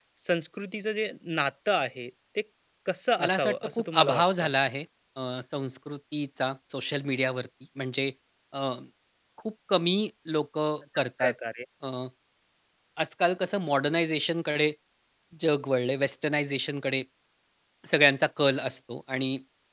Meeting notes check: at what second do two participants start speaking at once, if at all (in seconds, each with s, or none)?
3.2 s